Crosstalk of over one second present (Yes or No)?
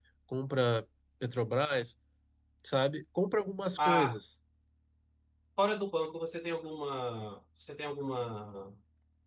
No